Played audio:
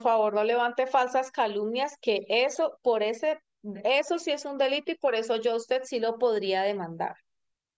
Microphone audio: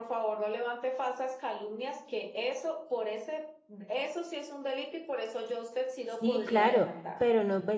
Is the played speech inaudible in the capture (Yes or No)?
No